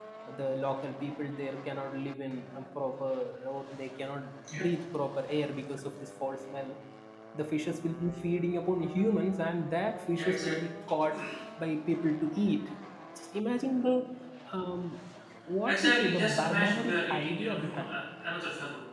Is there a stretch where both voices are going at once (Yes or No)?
Yes